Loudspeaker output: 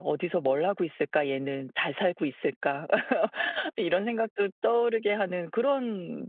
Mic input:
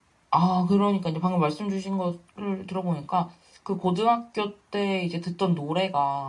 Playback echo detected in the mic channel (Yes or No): No